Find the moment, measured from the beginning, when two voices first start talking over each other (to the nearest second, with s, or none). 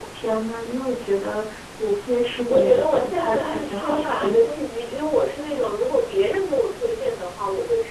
2 s